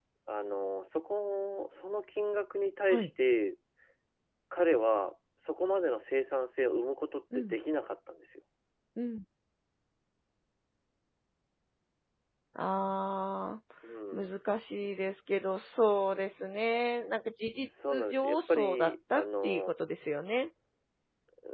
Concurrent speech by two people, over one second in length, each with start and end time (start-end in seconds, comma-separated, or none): 18.1-19.7